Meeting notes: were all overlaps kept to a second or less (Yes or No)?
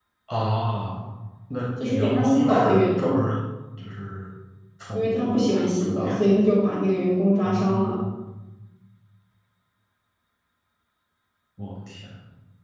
No